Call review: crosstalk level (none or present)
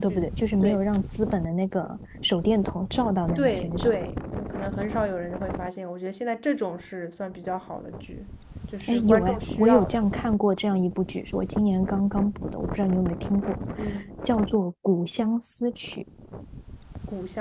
present